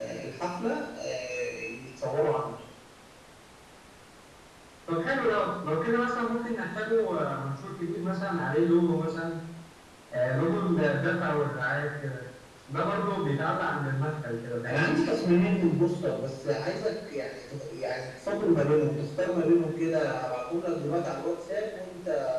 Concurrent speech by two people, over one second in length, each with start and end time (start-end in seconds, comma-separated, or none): none